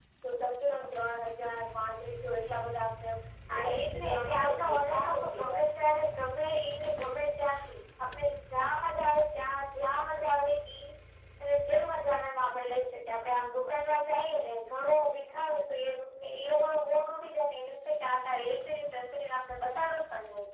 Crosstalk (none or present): present